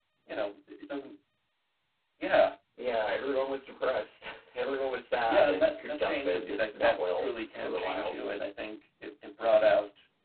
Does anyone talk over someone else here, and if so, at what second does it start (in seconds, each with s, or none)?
5.3 s